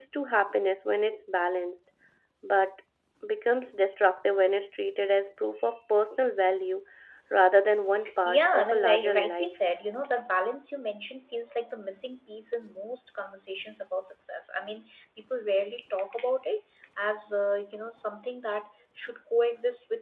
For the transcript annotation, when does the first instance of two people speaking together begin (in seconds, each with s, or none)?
8.2 s